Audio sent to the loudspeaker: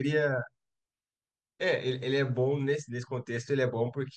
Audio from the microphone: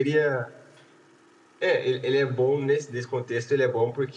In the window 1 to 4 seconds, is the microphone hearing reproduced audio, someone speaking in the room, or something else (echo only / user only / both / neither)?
echo only